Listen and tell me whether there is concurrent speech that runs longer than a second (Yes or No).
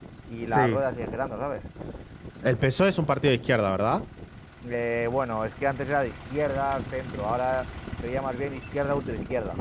No